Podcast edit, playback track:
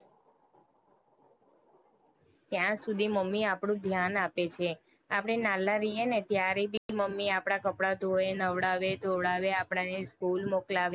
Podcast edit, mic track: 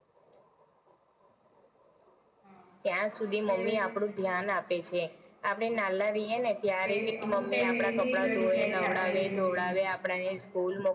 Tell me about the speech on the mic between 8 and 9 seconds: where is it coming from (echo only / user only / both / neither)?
both